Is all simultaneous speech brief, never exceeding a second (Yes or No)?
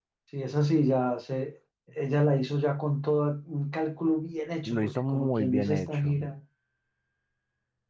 No